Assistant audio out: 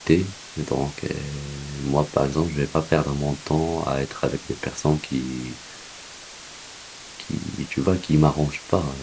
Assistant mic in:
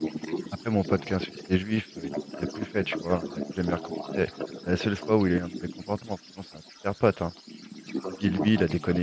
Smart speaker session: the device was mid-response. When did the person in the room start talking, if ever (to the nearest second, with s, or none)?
1 s